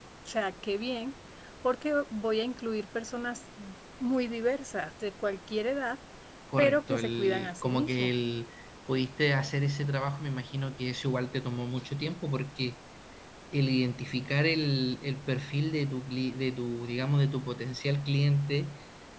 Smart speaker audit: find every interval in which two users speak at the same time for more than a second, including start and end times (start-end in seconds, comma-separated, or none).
6.6-8.1